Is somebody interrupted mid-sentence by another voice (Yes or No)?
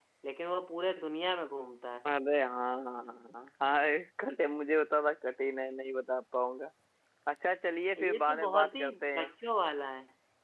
Yes